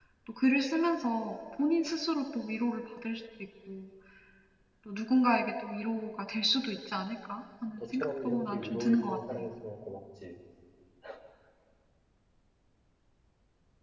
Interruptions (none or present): present